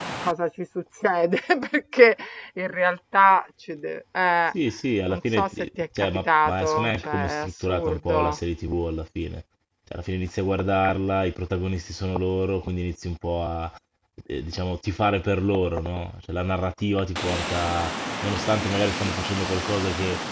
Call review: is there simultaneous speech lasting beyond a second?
Yes, from 5.1 s

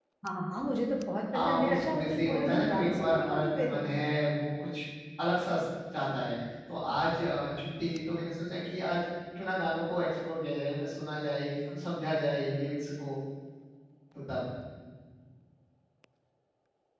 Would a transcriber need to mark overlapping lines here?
Yes, from 1.3 s

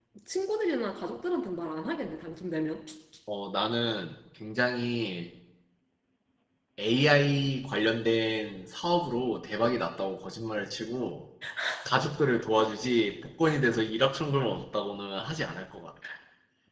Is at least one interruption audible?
No

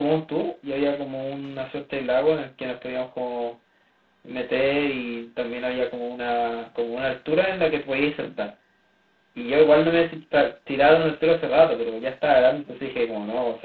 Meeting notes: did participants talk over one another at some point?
No

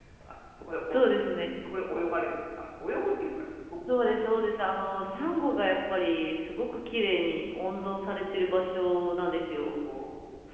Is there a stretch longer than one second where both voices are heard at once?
No

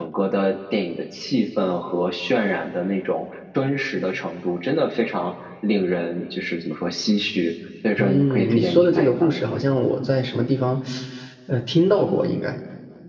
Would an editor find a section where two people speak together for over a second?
Yes, from 8.0 s

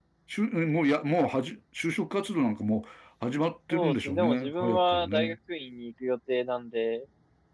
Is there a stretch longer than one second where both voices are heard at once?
Yes, from 3.7 s

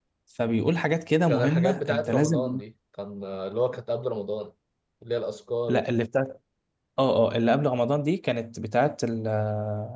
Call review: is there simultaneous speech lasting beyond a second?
Yes, from 1.3 s

